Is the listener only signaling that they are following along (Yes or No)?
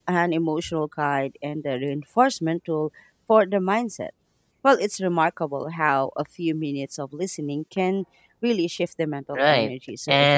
No